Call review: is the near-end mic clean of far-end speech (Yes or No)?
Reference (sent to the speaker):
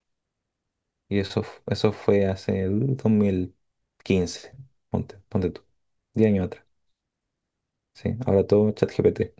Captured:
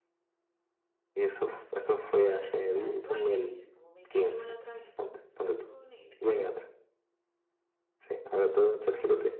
No